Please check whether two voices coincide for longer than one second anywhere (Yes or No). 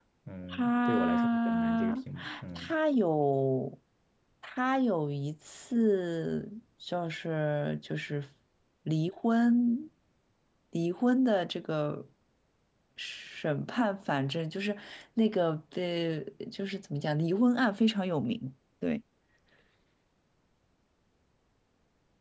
Yes